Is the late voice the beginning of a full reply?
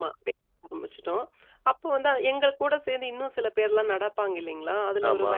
No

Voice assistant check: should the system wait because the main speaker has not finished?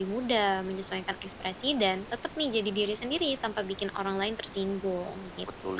No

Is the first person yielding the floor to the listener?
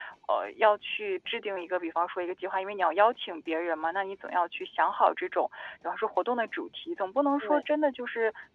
No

